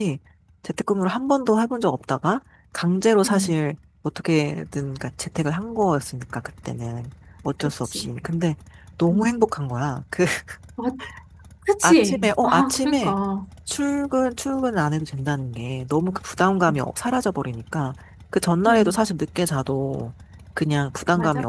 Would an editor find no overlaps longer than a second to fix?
No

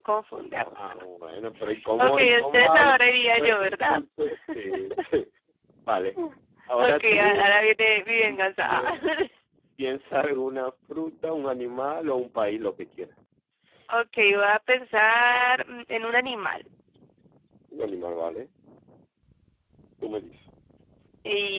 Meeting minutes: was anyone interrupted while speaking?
Yes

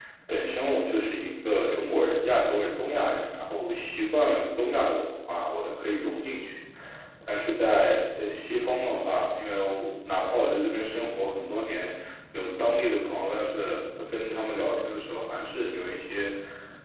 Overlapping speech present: No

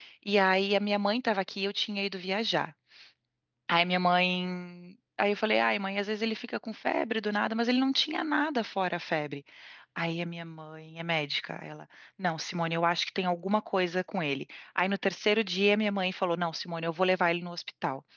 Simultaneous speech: No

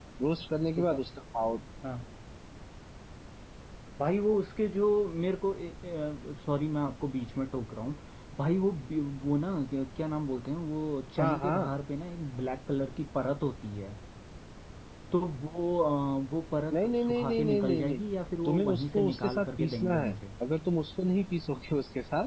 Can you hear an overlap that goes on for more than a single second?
Yes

